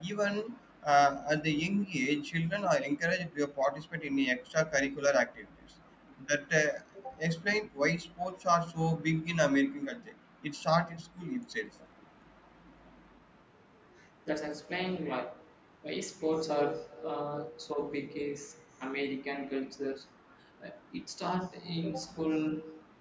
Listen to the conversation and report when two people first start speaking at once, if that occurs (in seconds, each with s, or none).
none